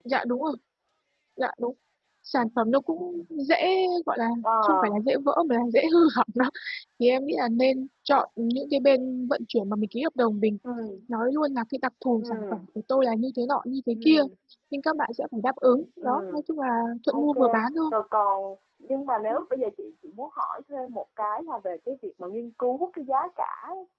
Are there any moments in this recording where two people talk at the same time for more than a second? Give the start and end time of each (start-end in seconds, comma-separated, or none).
none